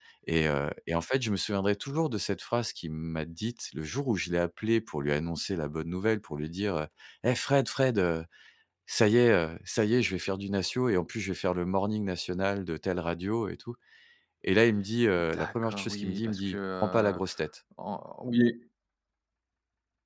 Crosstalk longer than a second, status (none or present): present